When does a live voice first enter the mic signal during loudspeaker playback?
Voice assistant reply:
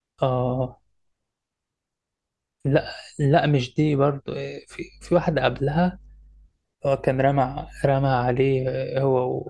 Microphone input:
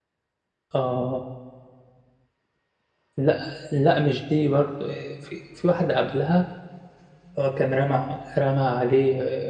none

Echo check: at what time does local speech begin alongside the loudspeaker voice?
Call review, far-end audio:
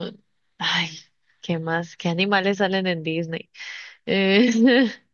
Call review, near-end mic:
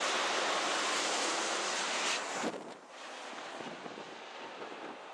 none

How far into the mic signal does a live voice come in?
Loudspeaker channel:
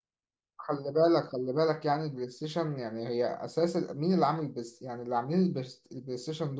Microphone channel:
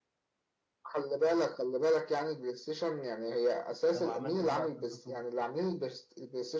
3.9 s

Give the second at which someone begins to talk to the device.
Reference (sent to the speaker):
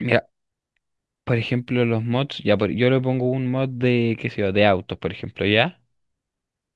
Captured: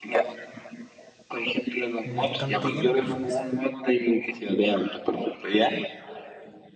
2.0 s

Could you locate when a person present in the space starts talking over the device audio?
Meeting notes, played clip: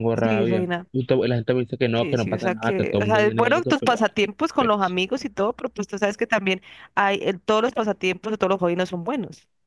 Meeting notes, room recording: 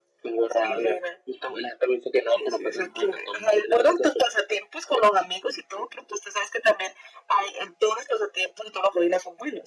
none

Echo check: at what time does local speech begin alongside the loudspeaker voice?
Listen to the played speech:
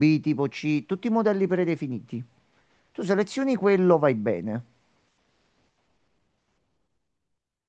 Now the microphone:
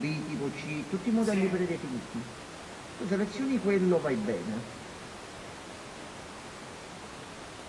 1.2 s

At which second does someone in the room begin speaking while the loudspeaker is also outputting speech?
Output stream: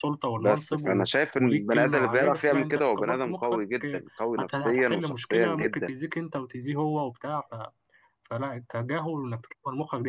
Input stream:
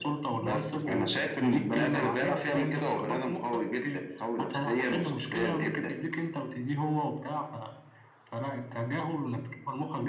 none

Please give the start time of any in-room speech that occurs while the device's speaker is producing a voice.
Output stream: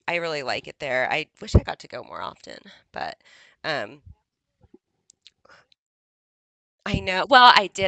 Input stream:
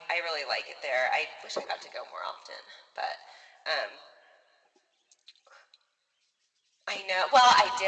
none

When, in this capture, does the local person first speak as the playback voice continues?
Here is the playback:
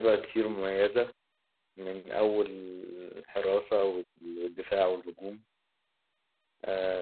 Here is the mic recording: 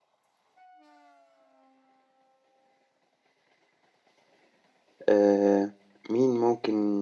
5.1 s

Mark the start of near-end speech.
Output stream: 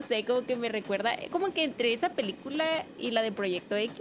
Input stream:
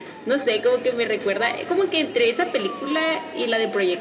none

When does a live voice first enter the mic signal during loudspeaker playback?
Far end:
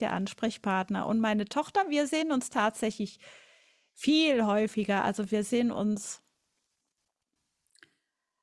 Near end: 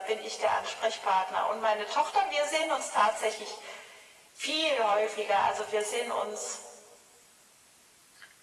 none

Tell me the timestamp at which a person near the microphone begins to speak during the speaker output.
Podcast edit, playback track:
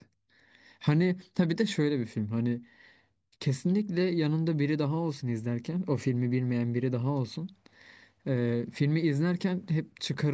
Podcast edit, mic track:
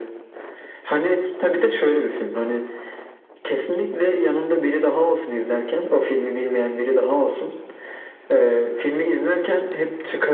none

